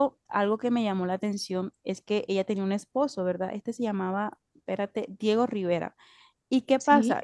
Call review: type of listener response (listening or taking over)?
listening